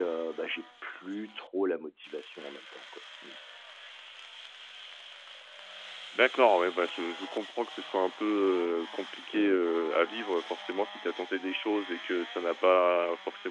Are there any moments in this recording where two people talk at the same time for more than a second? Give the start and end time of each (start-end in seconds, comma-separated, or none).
none